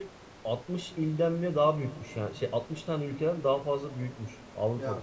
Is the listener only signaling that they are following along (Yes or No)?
Yes